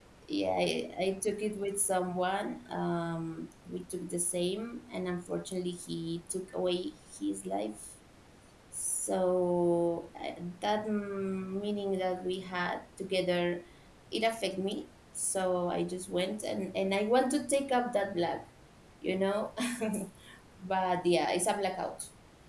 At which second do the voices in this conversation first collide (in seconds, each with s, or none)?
none